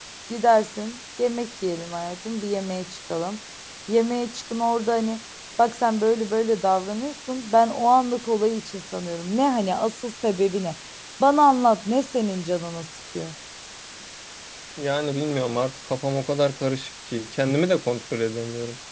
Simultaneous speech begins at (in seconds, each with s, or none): none